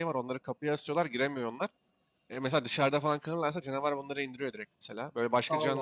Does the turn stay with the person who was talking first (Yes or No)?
Yes